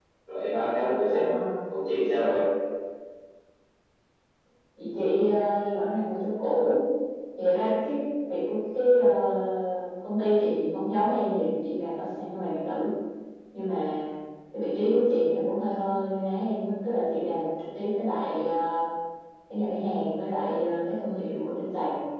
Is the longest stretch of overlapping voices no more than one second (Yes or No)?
Yes